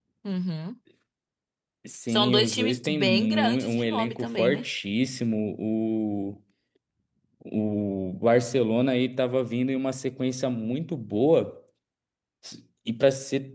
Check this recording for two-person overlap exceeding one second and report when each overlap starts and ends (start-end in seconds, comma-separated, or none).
2.1-4.6